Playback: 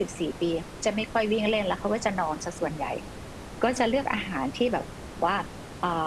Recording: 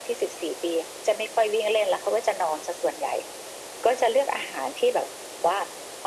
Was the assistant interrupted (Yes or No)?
No